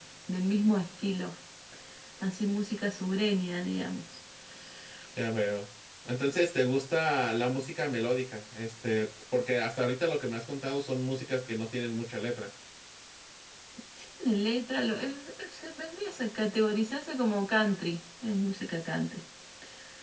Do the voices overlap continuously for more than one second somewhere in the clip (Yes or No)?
No